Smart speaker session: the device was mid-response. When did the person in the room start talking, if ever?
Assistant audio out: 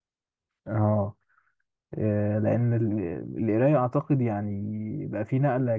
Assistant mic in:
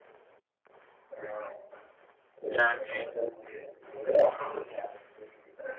2.5 s

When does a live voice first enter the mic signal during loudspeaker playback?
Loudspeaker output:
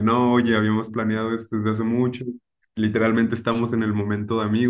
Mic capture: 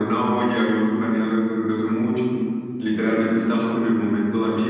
none

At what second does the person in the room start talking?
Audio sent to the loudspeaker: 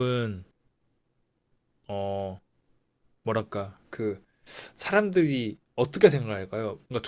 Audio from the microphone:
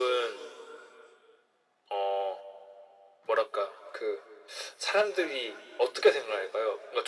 none

